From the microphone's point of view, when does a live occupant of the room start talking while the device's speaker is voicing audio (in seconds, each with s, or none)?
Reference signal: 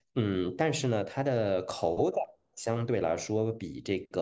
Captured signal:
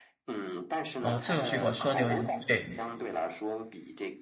1.0 s